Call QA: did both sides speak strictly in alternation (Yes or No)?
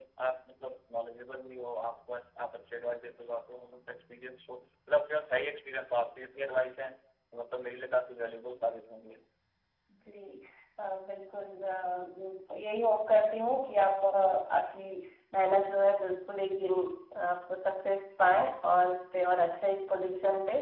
Yes